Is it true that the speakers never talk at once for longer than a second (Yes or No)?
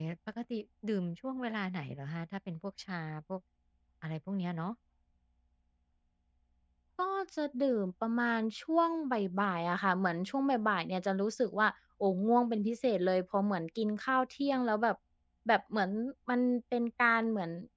Yes